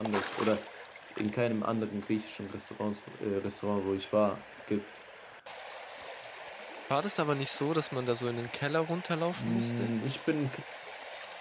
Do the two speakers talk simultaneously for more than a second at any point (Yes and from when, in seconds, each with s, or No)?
No